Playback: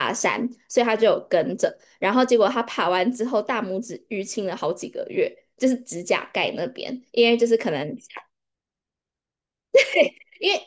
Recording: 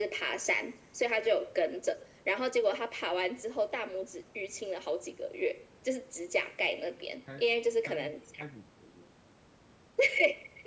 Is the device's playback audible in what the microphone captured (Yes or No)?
Yes